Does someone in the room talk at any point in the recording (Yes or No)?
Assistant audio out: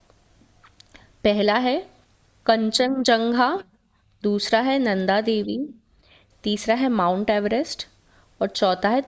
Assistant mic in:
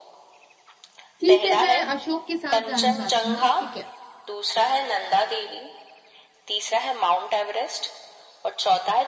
Yes